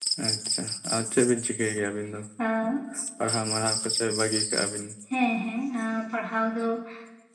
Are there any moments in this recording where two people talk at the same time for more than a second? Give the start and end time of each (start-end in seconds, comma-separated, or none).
none